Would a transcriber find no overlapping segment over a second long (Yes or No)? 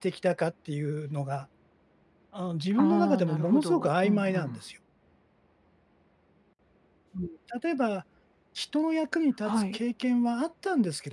No